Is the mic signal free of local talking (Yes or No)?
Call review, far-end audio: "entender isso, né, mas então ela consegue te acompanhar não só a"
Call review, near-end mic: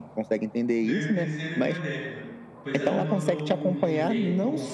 No